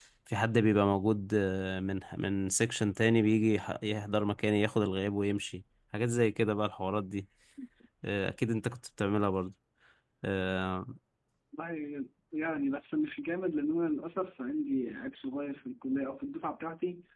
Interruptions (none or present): none